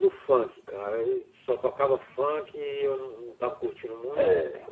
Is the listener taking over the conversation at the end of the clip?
No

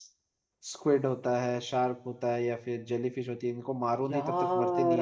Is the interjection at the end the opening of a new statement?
Yes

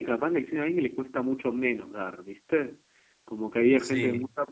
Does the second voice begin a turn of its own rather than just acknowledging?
No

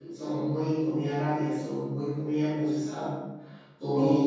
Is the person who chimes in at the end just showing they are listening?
No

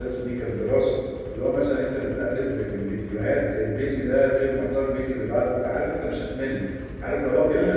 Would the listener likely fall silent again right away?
Yes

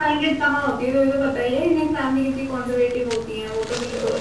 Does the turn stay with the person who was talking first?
No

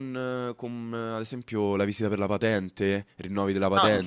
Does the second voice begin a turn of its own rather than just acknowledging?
No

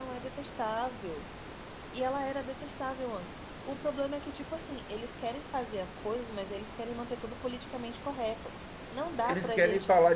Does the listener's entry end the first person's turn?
Yes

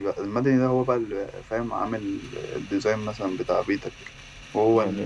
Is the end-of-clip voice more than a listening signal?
Yes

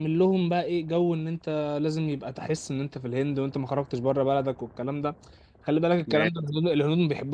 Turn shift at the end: No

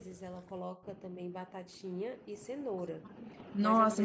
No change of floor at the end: No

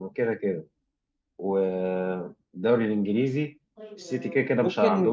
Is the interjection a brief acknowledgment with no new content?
No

